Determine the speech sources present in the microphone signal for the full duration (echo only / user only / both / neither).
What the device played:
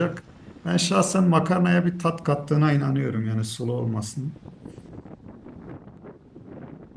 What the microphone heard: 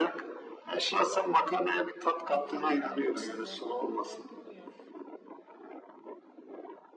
both